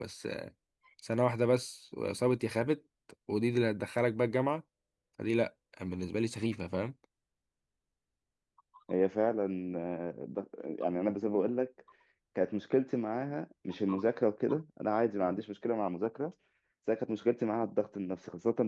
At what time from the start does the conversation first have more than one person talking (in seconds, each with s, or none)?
none